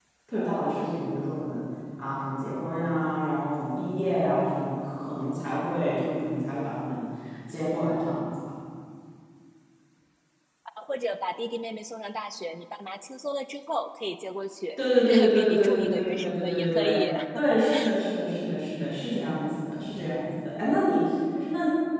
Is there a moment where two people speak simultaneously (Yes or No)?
Yes